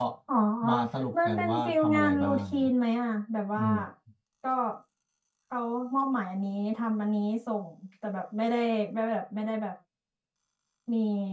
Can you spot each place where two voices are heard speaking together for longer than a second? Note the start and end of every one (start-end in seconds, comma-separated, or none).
1.2-2.7